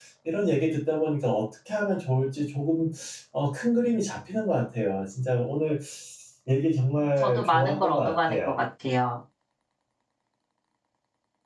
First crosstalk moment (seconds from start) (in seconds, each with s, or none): 7.2 s